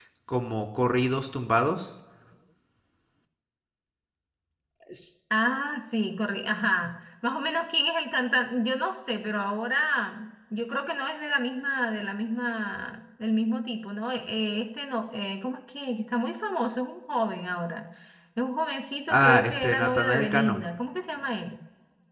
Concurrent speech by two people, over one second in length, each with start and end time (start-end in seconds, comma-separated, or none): 19.1-20.6